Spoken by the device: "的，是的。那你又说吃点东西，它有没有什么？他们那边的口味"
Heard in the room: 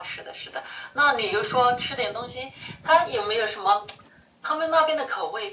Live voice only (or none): none